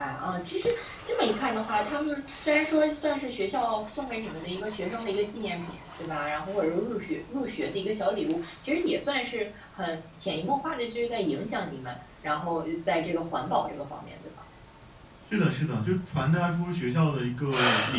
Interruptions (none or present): none